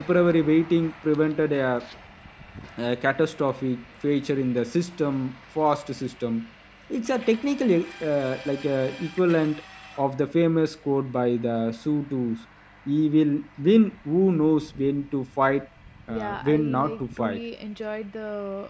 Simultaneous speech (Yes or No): Yes